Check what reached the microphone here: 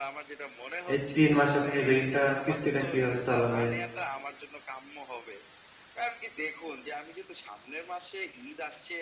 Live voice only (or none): এই ৩ মাস আপনি ঋণটা কিস্তিটা কিভাবে চালাবেন?